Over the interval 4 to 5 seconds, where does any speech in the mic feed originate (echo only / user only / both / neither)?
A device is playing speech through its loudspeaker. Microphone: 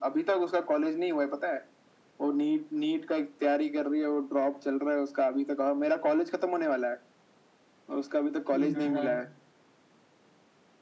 echo only